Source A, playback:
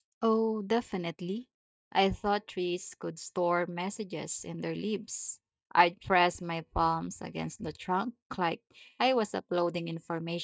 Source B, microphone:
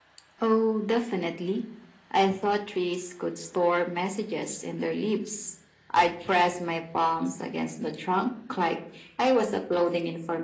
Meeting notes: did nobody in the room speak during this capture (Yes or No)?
Yes